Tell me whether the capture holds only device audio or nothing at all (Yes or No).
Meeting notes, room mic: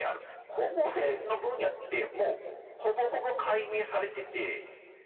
Yes